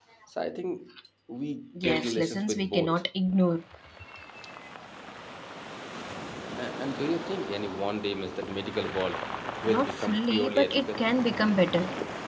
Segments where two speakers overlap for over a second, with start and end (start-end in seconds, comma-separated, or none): 1.8-3.0, 9.7-11.1